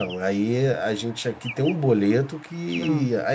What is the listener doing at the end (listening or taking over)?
listening